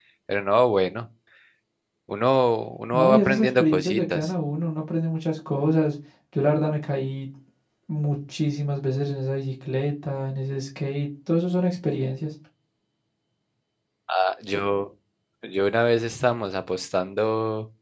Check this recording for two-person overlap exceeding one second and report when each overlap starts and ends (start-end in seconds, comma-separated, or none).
2.9-4.3